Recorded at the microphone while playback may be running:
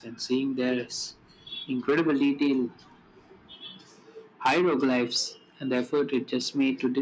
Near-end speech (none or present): none